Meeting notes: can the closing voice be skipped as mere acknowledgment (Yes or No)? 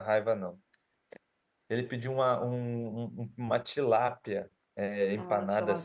Yes